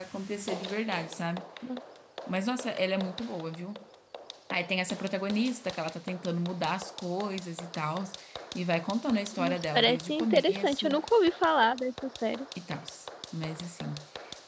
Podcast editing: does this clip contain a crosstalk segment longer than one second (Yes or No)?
Yes